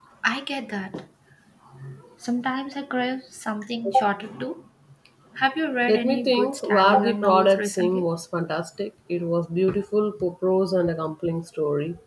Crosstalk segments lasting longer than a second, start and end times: 5.9-8.1

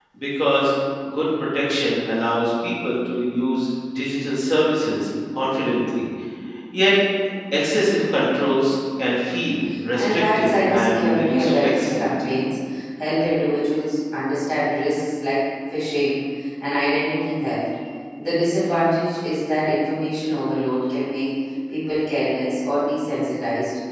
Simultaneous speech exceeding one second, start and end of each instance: 9.9-12.3

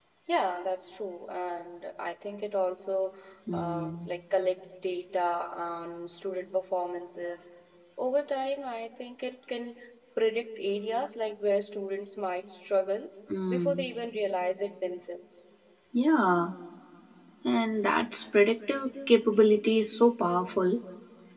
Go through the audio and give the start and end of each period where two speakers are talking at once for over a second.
none

